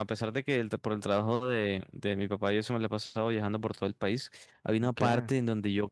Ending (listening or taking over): listening